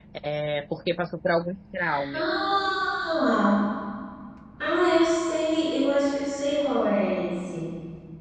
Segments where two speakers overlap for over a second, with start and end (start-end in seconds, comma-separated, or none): none